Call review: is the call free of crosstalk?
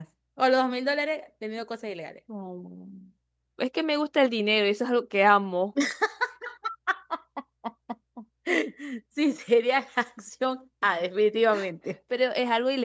Yes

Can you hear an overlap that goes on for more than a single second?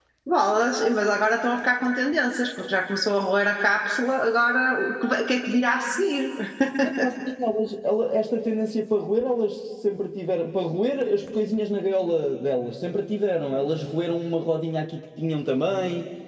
No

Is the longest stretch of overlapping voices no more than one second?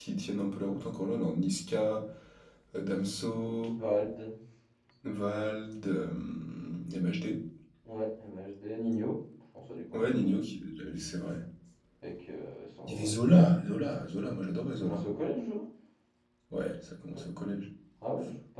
Yes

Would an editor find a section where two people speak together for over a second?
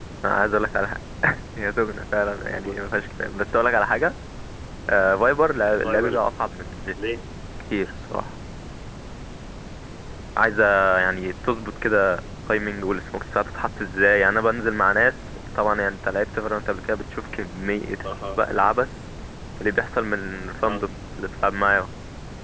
No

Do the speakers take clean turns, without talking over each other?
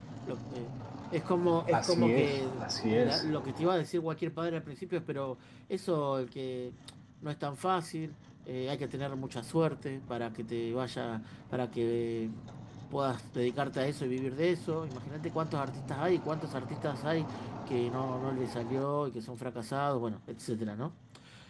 No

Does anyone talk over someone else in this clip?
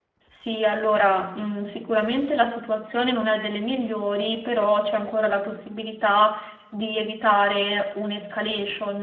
No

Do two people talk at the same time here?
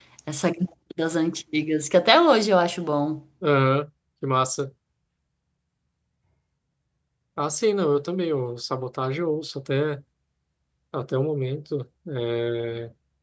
No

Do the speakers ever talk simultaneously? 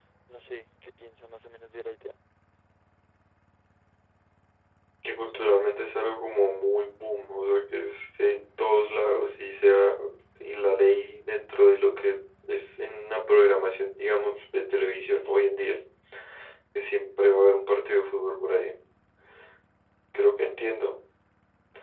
No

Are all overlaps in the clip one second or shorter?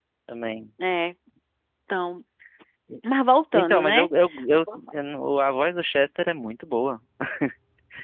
Yes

